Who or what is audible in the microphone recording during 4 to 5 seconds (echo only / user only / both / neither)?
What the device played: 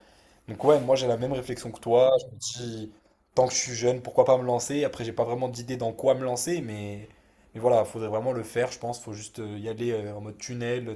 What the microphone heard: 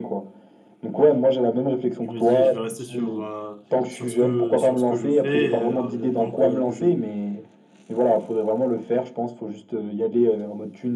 both